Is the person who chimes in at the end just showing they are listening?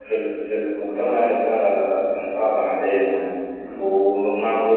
Yes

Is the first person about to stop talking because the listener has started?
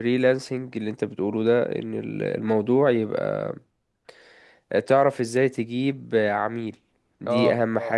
No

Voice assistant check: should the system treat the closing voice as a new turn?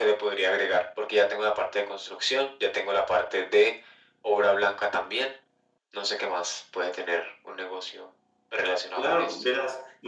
Yes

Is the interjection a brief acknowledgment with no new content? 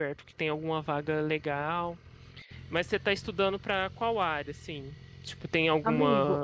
Yes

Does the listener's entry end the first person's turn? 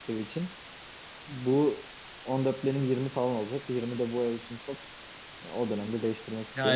Yes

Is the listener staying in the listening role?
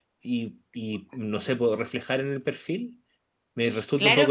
No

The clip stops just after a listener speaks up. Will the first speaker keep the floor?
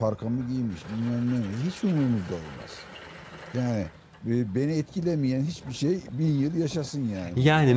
No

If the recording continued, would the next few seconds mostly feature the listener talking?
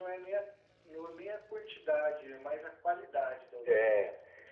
Yes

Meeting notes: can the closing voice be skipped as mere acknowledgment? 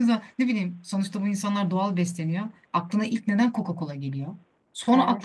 Yes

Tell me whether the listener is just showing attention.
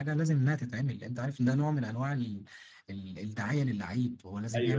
Yes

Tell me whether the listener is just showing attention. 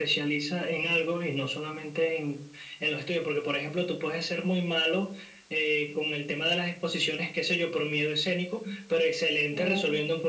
Yes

